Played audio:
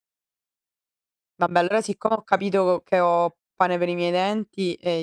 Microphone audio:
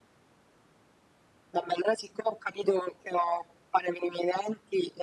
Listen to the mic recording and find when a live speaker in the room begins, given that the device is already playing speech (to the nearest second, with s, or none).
none